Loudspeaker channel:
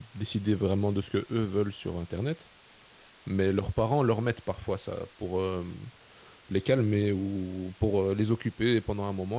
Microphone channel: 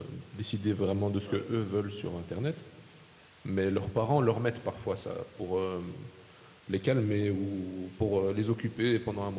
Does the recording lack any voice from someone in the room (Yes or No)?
No